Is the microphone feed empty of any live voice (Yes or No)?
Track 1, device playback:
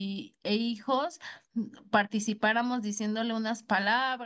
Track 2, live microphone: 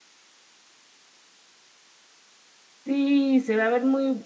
No